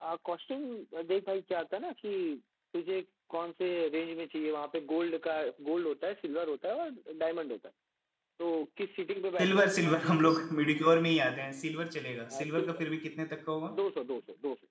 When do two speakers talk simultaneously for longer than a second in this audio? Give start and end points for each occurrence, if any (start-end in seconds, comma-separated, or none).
none